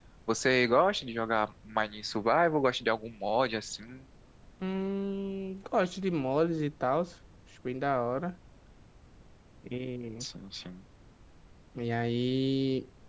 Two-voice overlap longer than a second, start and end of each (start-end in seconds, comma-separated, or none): none